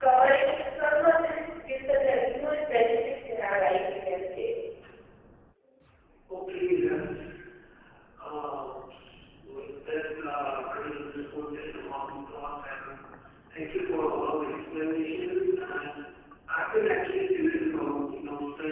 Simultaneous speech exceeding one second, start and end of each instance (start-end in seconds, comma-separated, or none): none